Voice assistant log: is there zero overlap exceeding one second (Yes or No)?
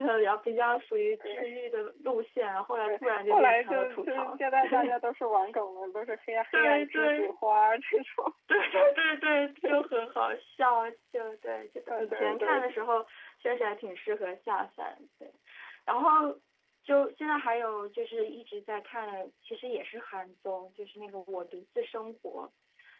No